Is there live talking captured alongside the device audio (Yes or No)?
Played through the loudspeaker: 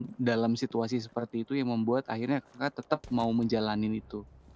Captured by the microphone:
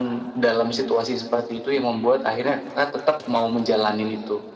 No